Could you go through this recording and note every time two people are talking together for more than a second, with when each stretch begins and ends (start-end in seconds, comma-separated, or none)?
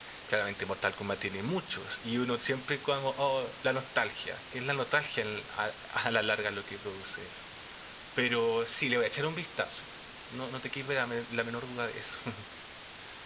none